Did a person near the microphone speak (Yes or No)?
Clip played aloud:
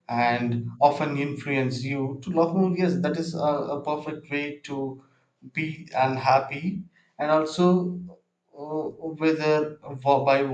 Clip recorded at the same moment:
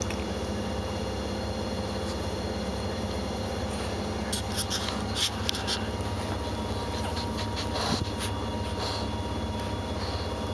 No